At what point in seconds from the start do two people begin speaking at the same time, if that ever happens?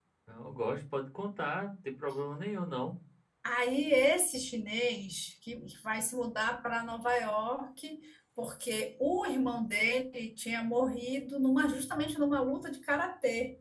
none

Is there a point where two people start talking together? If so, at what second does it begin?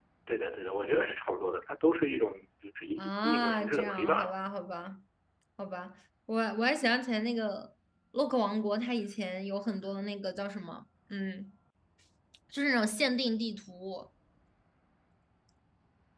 3 s

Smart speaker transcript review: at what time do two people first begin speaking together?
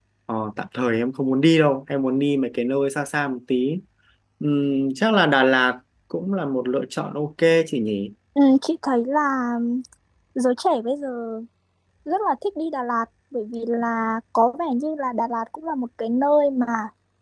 none

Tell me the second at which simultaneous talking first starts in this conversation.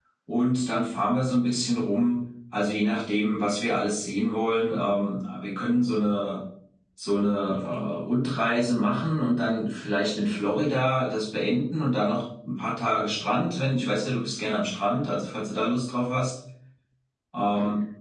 none

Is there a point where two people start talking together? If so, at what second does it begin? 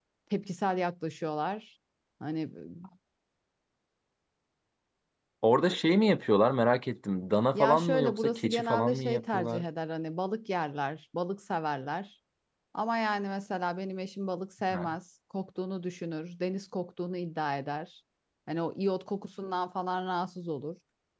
8 s

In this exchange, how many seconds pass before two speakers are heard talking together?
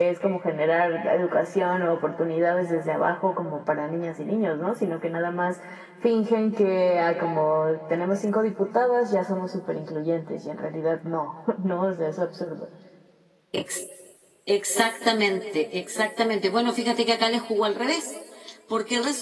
none

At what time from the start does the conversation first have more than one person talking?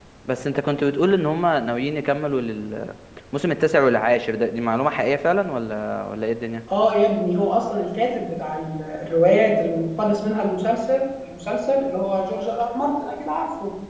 none

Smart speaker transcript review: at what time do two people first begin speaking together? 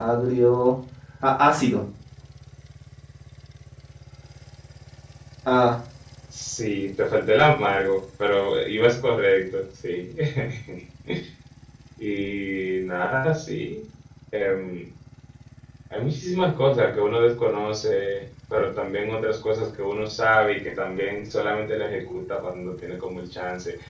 none

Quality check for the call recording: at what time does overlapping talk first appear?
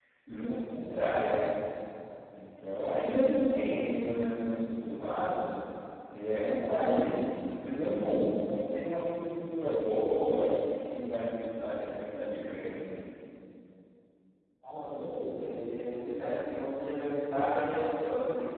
none

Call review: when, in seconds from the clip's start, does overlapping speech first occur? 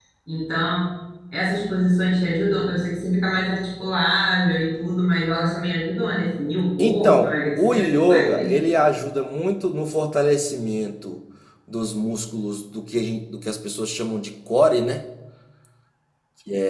7 s

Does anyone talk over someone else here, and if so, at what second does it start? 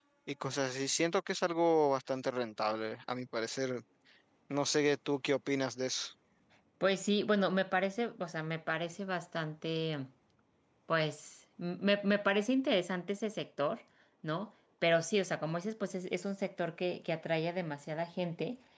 none

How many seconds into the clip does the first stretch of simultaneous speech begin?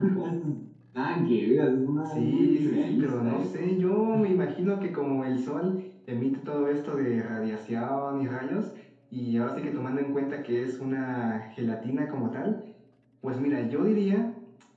2 s

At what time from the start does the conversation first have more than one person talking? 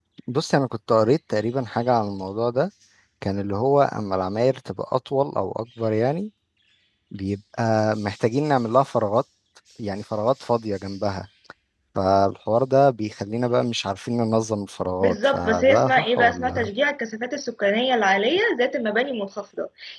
15 s

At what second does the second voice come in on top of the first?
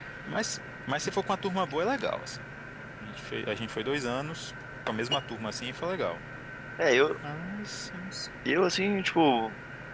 none

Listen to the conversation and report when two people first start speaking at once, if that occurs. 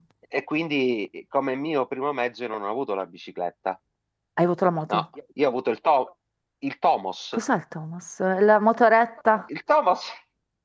none

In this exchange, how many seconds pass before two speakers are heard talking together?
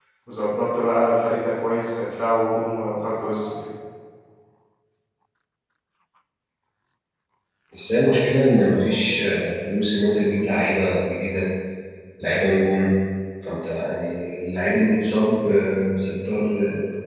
none

